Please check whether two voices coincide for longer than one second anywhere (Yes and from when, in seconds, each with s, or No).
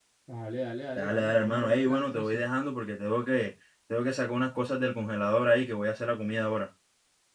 Yes, from 1.0 s